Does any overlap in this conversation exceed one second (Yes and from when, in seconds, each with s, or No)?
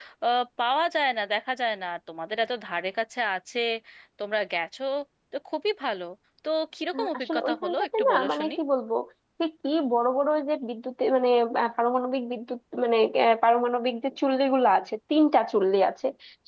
Yes, from 6.9 s